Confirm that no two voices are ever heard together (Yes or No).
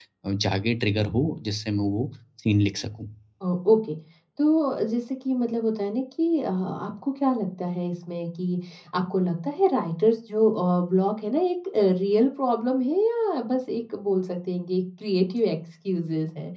Yes